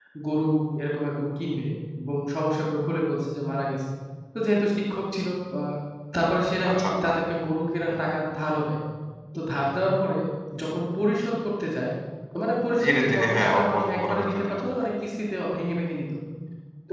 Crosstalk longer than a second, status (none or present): present